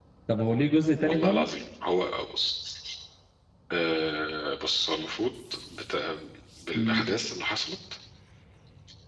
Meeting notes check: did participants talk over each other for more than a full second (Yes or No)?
No